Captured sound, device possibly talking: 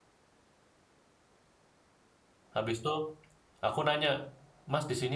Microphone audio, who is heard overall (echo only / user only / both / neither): user only